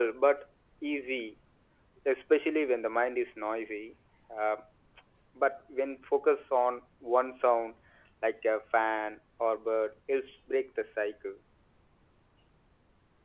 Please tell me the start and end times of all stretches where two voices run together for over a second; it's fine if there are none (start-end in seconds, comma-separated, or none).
none